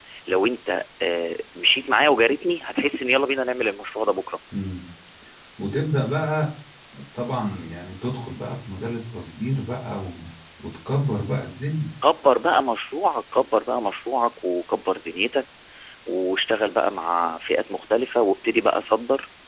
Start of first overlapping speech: none

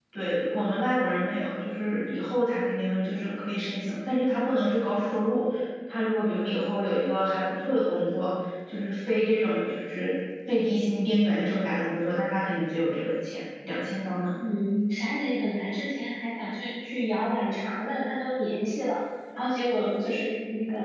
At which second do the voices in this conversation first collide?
none

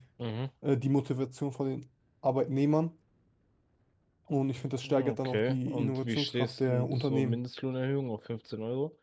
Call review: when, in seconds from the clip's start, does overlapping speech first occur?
4.8 s

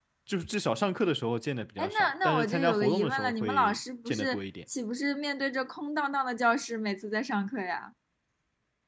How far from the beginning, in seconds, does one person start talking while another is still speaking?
1.8 s

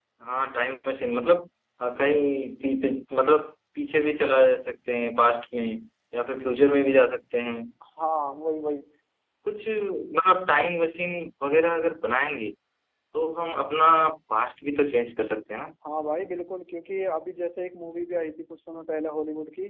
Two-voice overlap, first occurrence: none

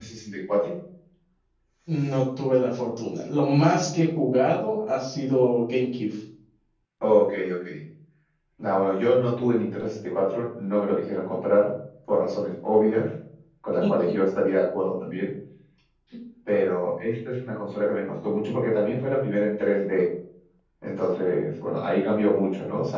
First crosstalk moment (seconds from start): none

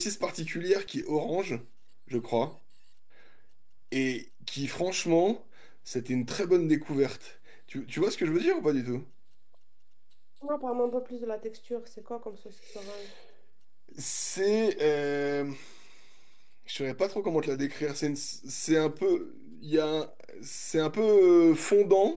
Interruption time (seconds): none

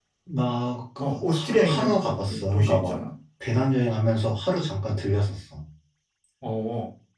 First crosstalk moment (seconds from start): 1.0 s

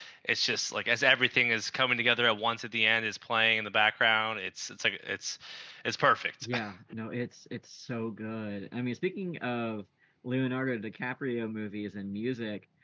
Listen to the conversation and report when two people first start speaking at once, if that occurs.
none

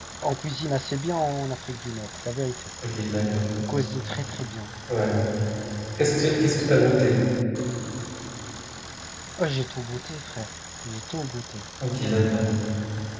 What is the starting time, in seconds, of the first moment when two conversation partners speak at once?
none

